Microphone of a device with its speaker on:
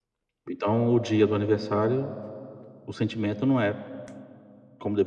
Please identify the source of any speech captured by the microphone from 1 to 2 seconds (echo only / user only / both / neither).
echo only